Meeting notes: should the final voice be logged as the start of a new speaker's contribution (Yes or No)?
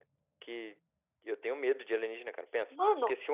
No